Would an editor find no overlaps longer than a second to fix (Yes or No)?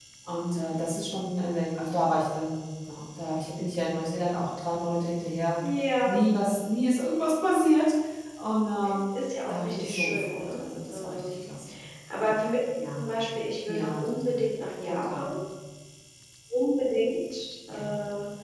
No